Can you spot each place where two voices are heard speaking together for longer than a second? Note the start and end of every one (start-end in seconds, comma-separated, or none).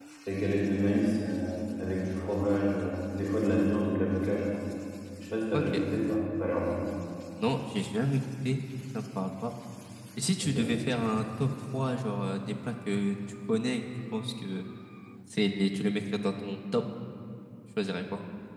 none